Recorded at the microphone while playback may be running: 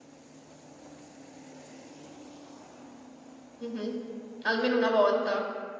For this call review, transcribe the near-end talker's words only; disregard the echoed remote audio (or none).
mh-mh. Almeno una volta.